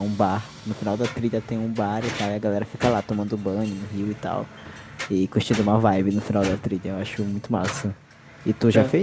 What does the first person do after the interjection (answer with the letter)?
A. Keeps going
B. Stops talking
A